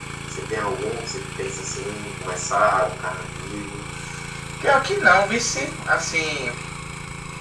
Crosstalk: none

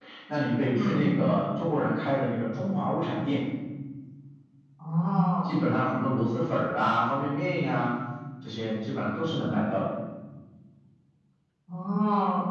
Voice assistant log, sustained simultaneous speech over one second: none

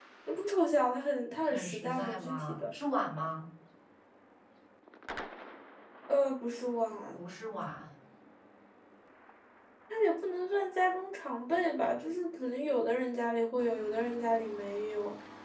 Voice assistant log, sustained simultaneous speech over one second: present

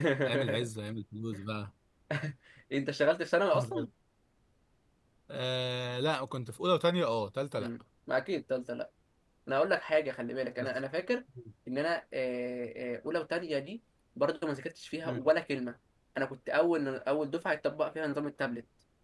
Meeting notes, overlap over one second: none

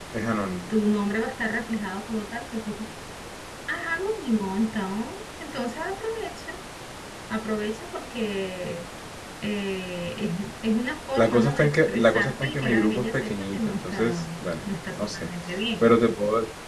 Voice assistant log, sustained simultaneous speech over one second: present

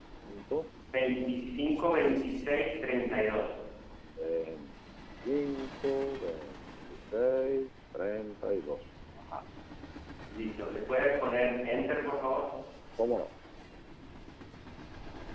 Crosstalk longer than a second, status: none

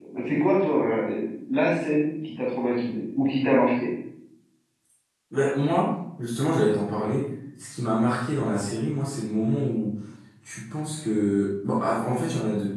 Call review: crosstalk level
none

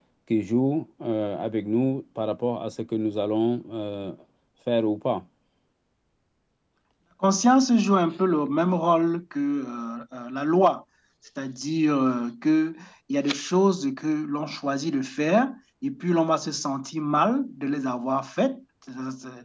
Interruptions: none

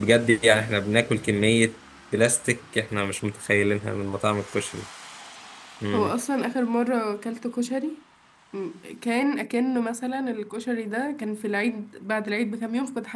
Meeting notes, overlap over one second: none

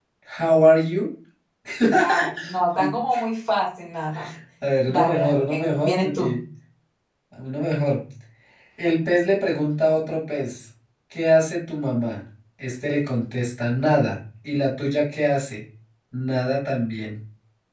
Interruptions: present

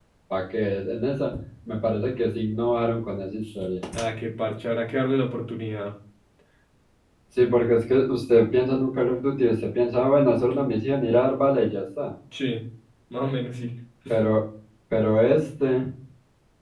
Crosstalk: none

